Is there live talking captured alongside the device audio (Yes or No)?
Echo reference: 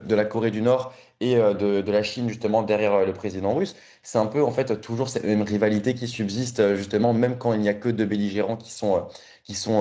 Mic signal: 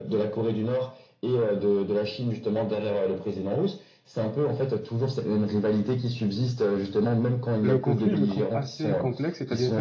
Yes